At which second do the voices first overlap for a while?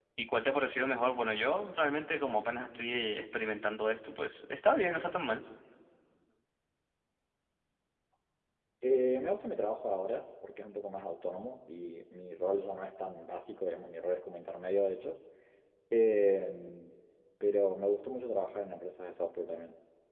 none

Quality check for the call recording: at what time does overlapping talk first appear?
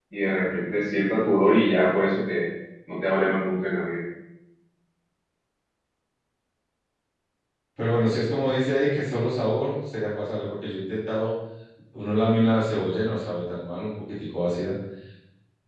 none

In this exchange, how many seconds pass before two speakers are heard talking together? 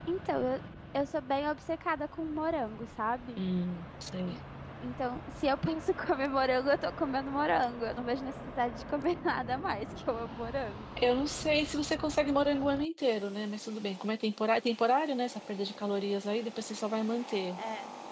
none

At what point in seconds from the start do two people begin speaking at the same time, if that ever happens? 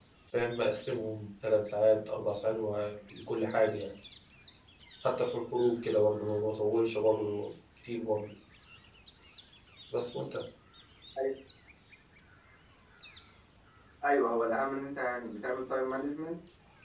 none

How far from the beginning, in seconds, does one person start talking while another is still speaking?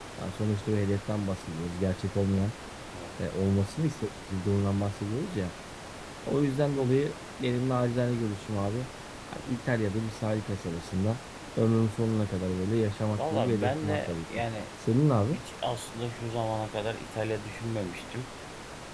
13 s

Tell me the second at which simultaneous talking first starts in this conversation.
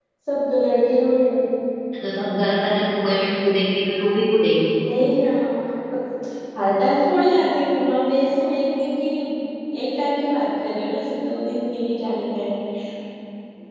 none

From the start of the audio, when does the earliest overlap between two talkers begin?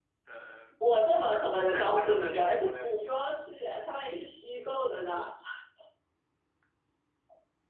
2 s

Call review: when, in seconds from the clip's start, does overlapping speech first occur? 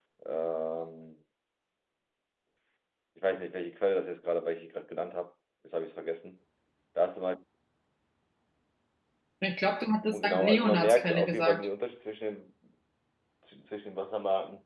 10 s

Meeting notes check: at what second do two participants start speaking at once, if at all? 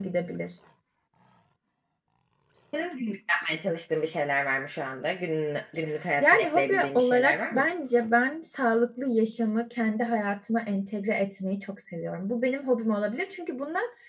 6 s

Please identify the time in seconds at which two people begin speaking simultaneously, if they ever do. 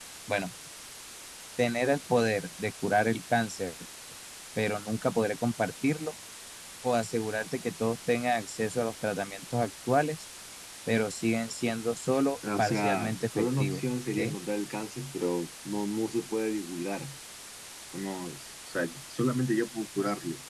12 s

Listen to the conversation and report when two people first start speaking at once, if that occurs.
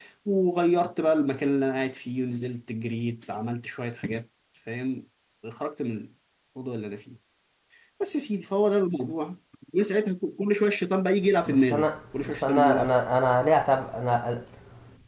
11 s

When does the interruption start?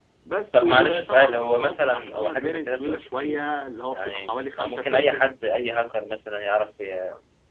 1 s

